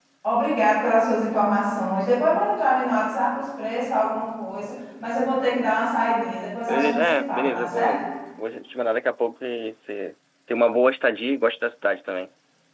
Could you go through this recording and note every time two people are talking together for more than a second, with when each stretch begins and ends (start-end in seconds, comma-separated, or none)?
6.7-8.1